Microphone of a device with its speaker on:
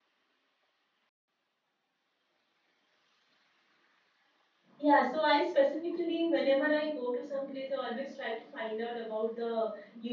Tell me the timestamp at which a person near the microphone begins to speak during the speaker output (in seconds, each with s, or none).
4.8 s